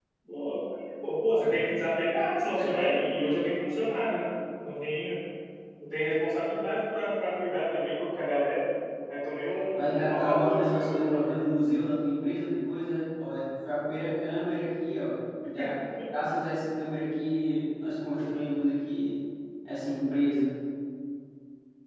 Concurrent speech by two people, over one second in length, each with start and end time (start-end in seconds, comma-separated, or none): 9.8-11.4